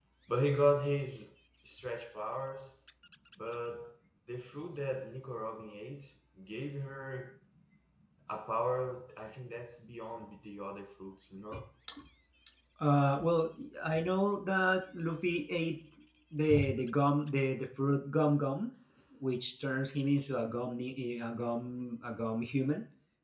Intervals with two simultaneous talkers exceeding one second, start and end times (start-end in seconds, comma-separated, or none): none